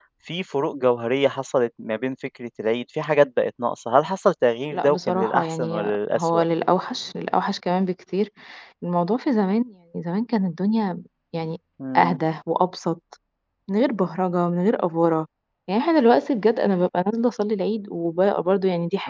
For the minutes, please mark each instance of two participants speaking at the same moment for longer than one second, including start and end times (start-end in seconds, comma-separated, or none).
4.7-6.4